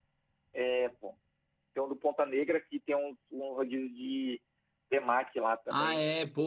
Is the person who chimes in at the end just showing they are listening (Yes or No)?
No